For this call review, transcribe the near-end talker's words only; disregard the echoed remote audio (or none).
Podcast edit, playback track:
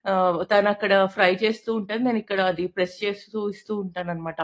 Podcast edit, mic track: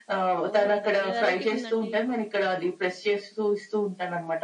ఓహ్! ఇది భలే వేరైటీ‌గుందండి.